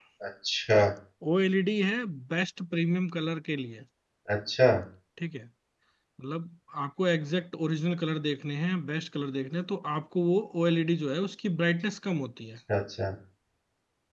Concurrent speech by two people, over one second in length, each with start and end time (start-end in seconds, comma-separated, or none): none